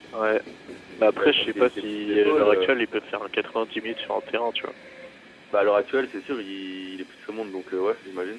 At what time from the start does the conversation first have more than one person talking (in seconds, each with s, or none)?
1.2 s